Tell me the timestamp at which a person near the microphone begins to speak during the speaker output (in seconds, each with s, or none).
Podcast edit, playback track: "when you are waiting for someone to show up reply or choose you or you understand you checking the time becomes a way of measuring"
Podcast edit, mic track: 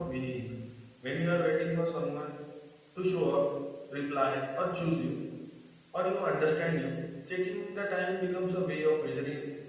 none